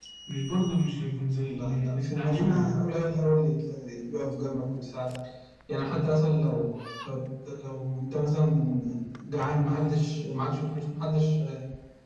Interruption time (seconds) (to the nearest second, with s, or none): 1 s